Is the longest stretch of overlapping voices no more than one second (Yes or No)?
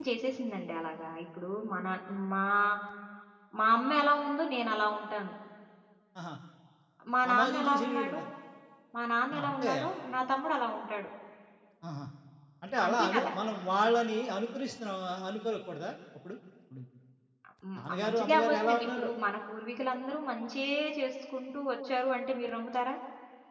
No